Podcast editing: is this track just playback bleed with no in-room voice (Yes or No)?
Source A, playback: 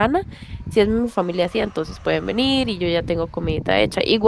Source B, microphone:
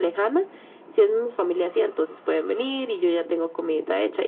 Yes